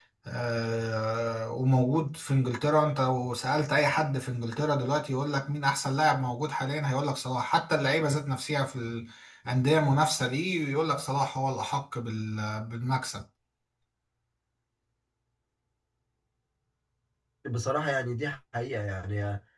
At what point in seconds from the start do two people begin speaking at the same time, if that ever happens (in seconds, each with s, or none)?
none